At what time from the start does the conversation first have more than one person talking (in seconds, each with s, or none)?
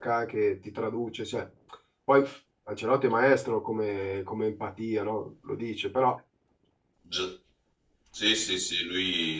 none